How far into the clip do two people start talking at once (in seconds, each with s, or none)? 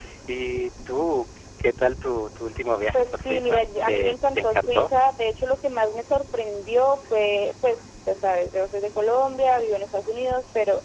2.9 s